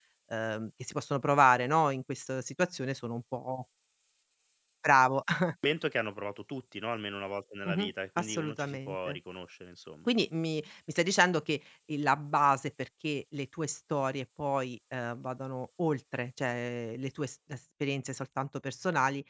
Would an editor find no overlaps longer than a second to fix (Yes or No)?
No